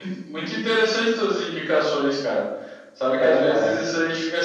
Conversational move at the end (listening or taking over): listening